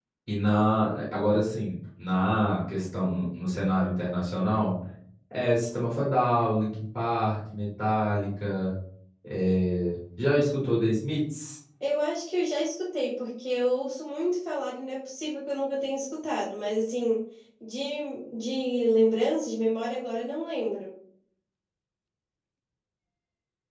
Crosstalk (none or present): none